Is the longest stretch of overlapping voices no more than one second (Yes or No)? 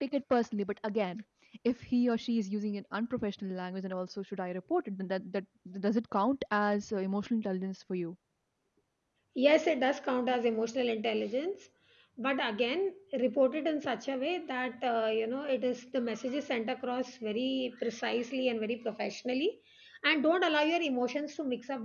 Yes